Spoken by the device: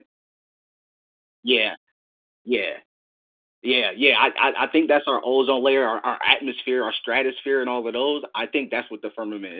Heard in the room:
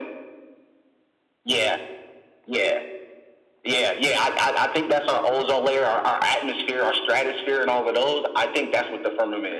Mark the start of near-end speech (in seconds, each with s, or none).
none